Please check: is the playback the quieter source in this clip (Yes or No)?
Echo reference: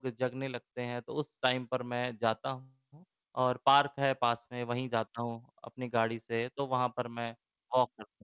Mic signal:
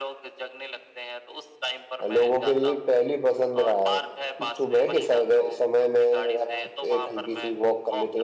Yes